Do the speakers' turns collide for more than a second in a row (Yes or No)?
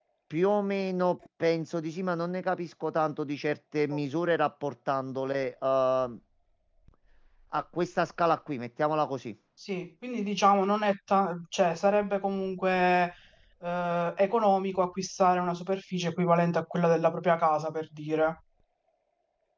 No